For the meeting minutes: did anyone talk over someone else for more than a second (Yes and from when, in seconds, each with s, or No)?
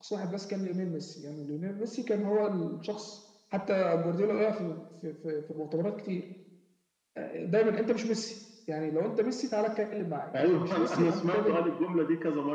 Yes, from 10.3 s